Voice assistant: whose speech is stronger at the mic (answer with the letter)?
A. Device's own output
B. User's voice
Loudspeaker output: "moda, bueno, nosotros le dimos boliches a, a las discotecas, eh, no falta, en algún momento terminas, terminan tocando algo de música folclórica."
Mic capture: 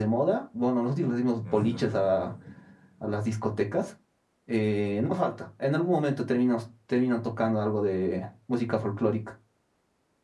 A